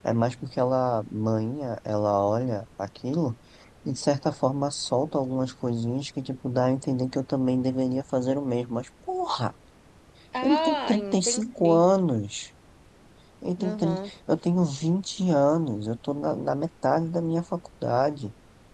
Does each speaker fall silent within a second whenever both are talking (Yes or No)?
No